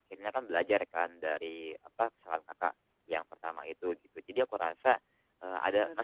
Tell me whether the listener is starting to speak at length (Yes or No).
No